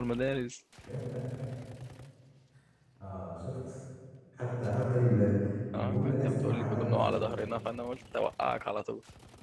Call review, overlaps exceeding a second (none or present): present